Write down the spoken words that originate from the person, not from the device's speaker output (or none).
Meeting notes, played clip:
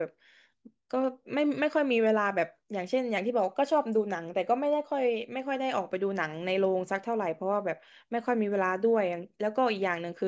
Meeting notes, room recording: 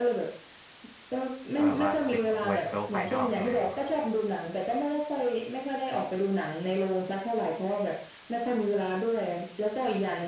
ก็แบบว่าปิดตัวโลกภายนอกเลย